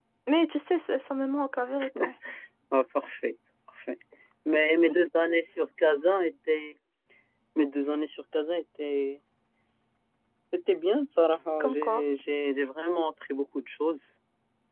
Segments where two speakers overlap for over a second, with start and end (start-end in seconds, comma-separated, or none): none